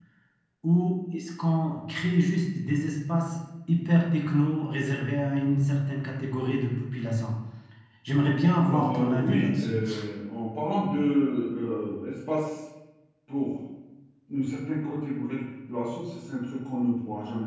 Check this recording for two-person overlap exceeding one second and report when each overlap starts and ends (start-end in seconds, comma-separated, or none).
8.6-9.8